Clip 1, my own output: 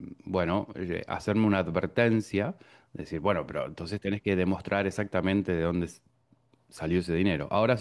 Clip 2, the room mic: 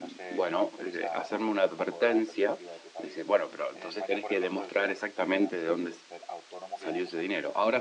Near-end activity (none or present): present